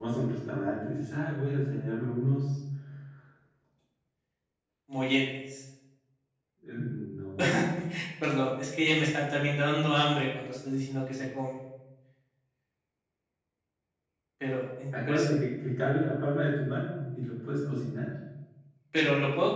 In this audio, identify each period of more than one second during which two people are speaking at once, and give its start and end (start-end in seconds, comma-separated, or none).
none